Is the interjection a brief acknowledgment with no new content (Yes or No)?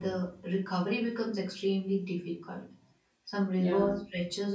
Yes